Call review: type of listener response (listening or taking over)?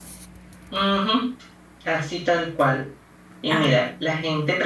listening